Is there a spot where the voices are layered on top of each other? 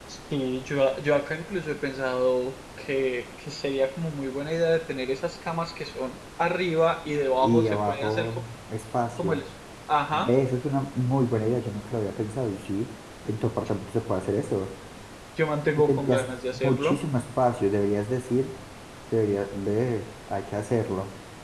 Yes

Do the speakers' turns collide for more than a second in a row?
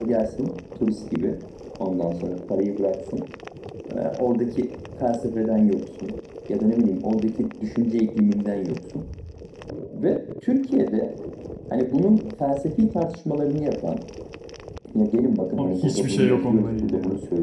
Yes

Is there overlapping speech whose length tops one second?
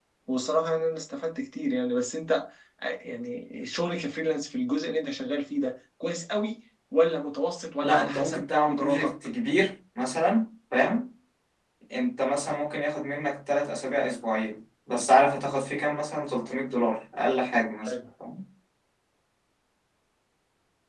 Yes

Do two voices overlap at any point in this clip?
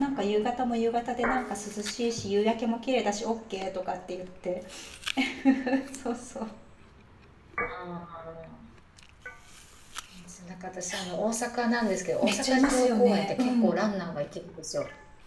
Yes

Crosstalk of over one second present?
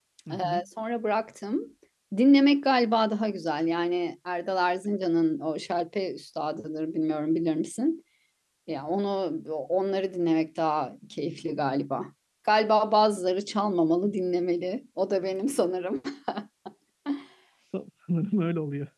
No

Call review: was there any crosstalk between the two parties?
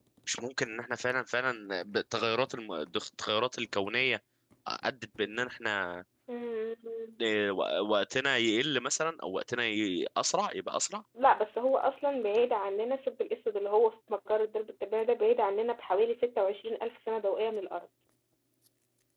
No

